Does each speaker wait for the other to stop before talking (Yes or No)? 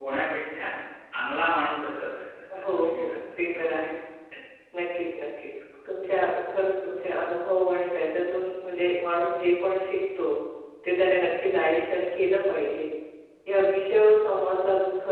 No